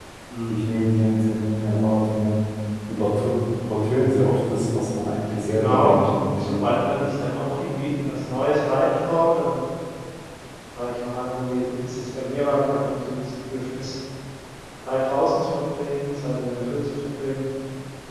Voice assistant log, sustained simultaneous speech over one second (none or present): present